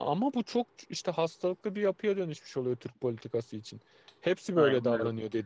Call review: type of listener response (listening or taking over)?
listening